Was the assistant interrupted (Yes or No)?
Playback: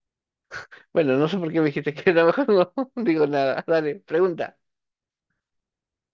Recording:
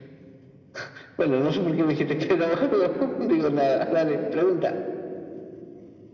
No